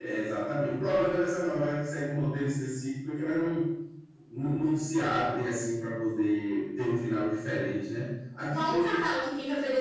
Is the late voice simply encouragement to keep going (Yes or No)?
No